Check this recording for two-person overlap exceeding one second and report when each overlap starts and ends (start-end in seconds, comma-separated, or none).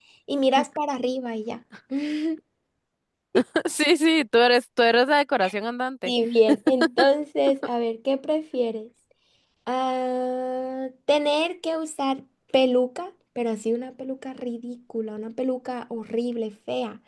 none